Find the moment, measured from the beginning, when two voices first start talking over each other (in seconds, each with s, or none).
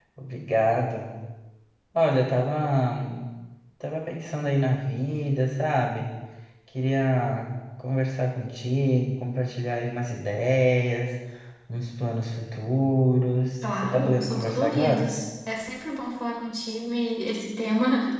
13.6 s